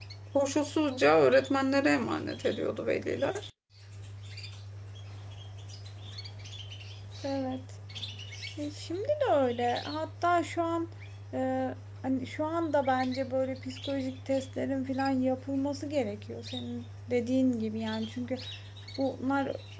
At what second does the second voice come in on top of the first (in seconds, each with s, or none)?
none